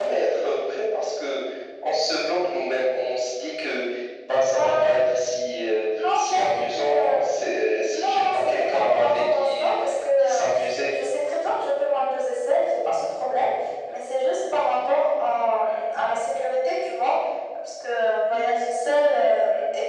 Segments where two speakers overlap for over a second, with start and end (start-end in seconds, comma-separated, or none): 7.9-9.7